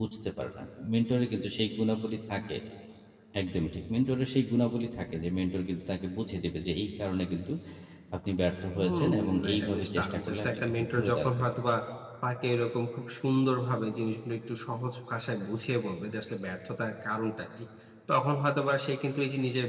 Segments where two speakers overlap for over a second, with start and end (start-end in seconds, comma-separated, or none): 8.8-11.6